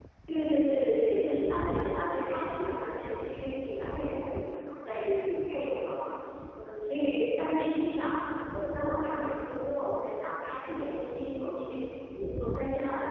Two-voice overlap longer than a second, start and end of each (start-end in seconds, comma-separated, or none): none